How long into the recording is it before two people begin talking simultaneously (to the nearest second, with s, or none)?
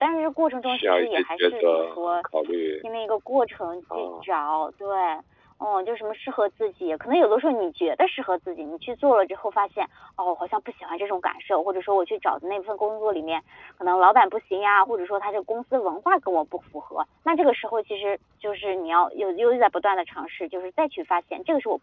1 s